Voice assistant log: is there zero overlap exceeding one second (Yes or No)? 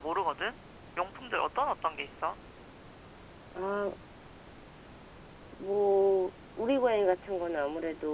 Yes